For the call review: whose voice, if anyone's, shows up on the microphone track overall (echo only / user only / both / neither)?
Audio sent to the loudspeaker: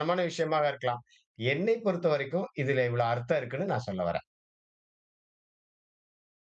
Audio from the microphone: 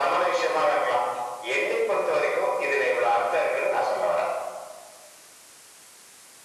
echo only